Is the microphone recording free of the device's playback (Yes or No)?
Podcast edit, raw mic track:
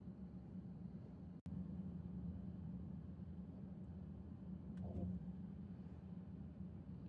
Yes